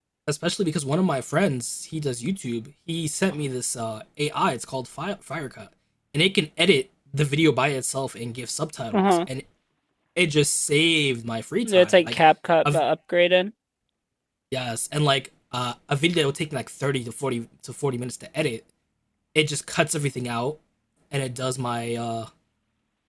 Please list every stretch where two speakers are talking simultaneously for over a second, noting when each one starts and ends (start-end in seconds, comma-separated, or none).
none